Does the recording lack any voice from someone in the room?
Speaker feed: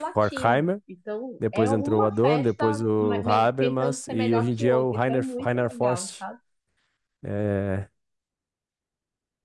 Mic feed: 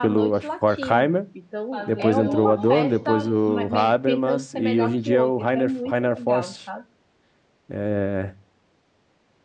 No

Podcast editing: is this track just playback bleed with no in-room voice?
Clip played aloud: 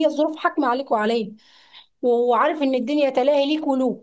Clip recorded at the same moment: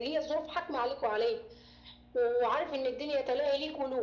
Yes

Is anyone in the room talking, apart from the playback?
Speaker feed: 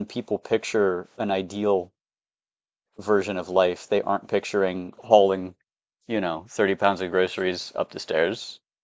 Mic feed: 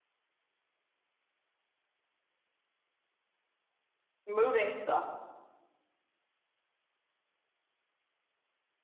Yes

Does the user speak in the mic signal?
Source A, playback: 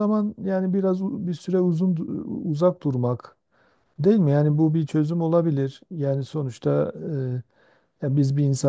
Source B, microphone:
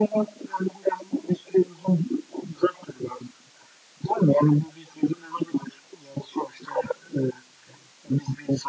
No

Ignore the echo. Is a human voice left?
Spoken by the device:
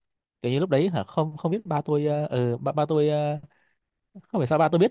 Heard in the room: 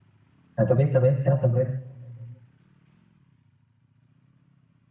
Yes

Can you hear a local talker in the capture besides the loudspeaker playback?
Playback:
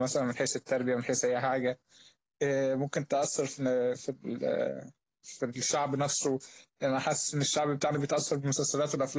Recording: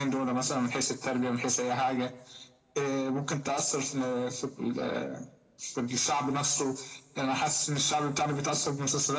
No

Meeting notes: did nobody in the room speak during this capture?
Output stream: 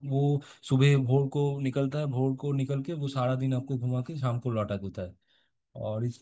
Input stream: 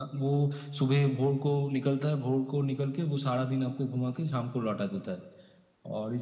Yes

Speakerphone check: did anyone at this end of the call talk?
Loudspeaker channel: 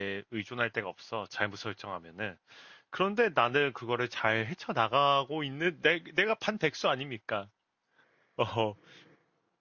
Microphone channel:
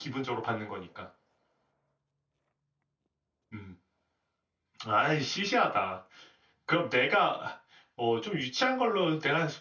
Yes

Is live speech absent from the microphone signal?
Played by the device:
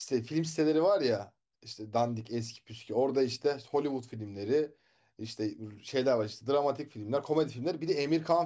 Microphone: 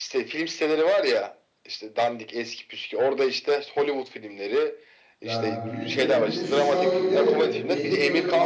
No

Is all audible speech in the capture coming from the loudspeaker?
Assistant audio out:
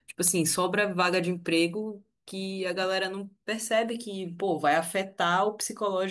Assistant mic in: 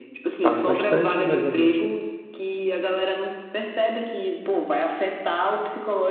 No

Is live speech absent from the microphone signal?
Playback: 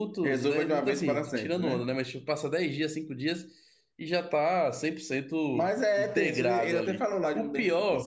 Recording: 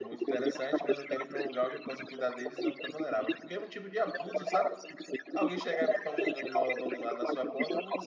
No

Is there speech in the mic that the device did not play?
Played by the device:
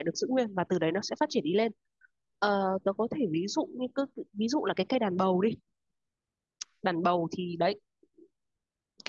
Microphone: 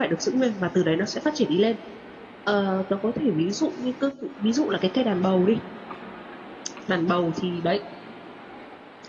No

